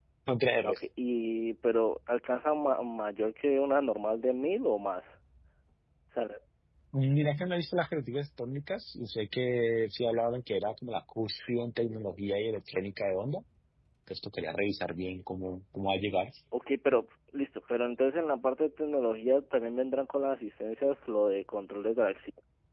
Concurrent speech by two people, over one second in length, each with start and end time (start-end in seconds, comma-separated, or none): none